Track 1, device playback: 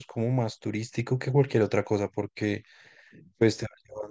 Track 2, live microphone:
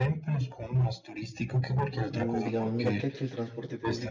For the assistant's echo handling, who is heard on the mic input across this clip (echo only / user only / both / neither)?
both